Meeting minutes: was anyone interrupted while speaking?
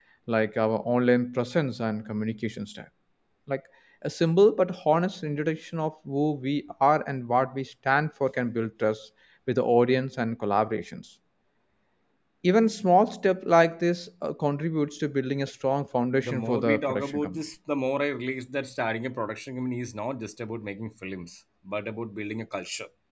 Yes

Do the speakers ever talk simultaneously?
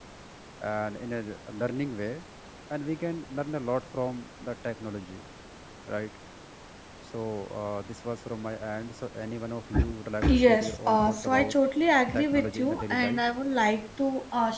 Yes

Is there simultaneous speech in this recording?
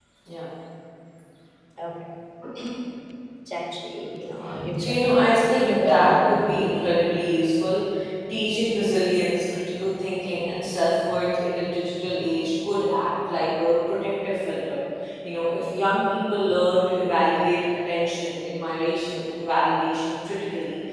Yes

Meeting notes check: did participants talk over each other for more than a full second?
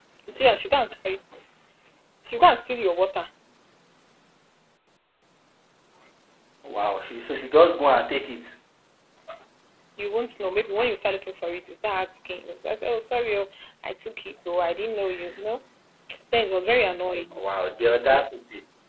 No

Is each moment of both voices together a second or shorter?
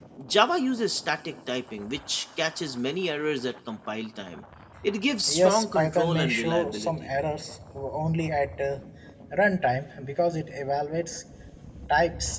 No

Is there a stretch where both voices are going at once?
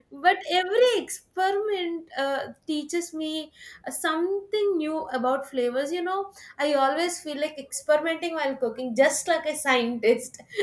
No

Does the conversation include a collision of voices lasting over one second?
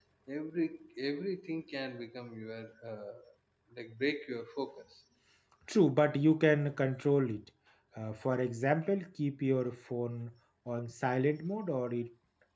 No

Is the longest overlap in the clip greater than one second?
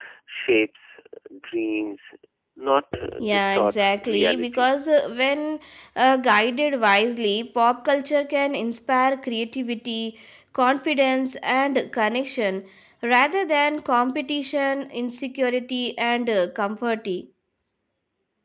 Yes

